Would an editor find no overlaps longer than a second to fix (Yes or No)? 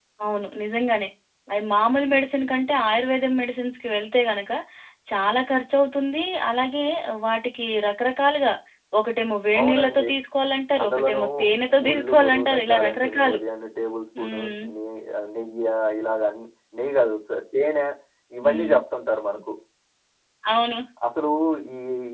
No